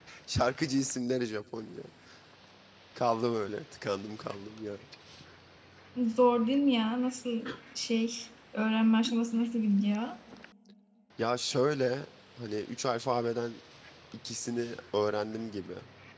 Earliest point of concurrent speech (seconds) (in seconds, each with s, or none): none